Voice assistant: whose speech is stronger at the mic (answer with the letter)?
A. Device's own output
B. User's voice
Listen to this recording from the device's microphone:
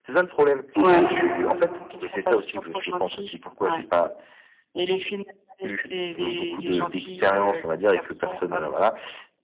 B